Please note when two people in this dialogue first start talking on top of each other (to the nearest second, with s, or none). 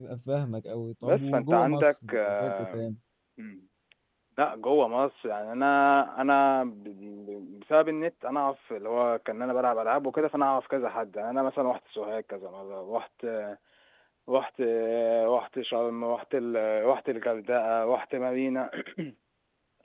1 s